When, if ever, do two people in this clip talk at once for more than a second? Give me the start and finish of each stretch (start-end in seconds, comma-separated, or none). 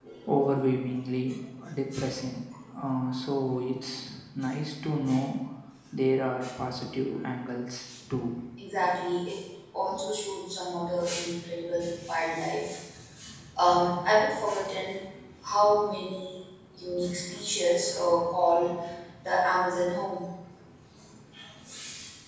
none